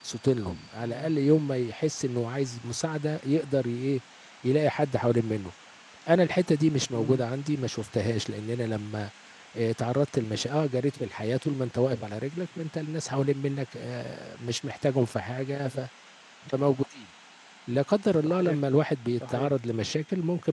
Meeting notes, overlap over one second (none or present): none